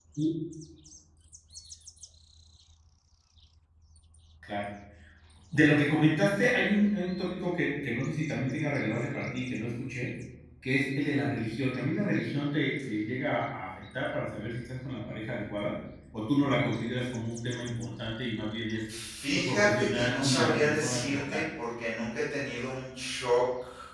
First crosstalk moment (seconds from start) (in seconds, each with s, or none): 19.3 s